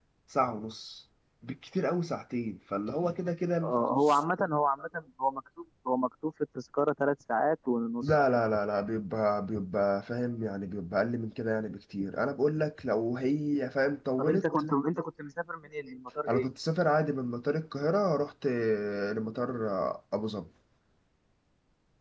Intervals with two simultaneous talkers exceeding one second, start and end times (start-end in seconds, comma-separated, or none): none